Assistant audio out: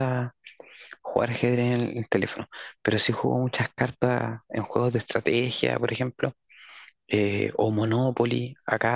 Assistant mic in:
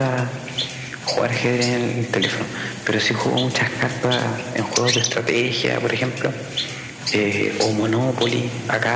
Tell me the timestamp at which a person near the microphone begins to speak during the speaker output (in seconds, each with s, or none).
none